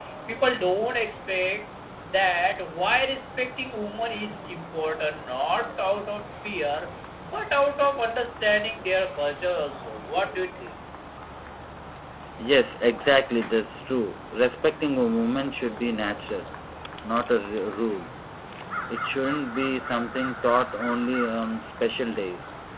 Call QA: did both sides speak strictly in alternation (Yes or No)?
Yes